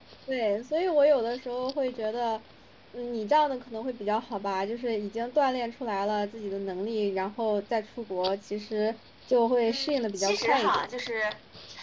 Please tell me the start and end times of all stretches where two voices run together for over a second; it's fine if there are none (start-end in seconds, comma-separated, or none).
9.7-10.9